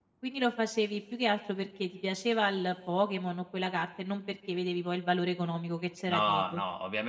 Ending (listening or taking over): taking over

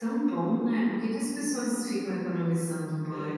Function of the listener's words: taking over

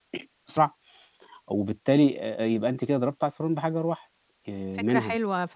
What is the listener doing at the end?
taking over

